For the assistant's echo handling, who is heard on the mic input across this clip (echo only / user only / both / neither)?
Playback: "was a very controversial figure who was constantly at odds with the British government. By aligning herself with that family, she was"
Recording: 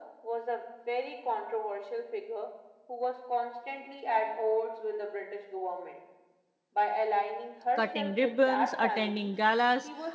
both